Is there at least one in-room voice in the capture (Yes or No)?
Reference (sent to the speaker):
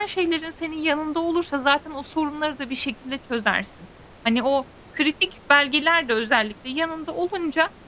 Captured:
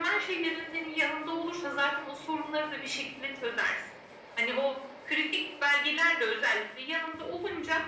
No